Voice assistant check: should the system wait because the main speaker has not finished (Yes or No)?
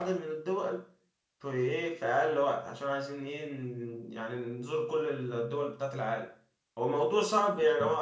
Yes